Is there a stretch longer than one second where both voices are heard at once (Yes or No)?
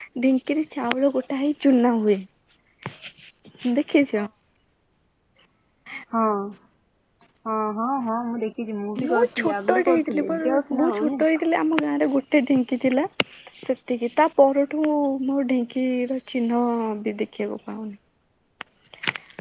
Yes